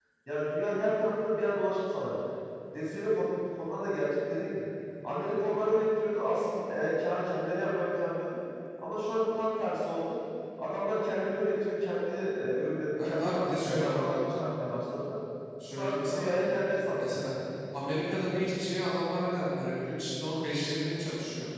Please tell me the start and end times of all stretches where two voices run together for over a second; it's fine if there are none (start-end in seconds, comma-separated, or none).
13.0-14.2